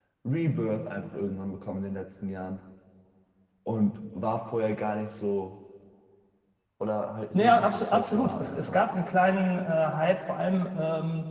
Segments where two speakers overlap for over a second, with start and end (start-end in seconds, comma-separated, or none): 7.3-8.8